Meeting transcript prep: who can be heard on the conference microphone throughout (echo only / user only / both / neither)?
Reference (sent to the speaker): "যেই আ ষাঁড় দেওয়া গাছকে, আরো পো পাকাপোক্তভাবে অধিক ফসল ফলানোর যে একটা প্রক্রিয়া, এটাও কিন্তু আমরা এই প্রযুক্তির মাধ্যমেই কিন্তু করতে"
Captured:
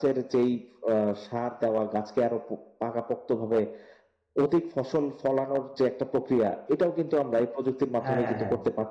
both